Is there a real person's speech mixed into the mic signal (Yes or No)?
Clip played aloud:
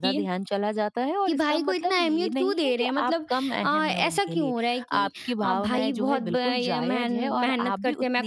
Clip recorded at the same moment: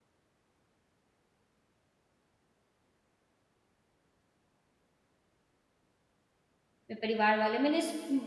Yes